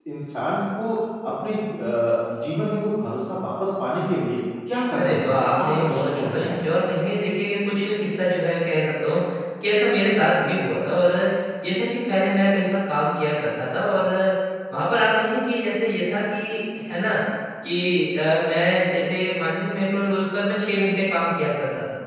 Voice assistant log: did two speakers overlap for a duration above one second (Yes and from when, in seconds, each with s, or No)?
Yes, from 4.9 s